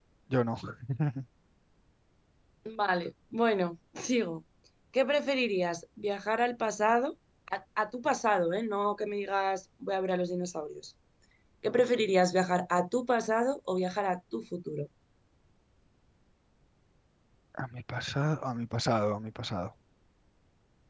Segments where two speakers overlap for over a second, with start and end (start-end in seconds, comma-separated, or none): none